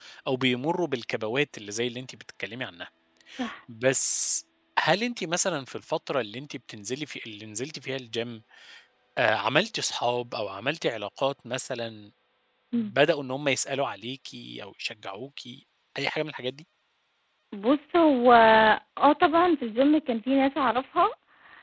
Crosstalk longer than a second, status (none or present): none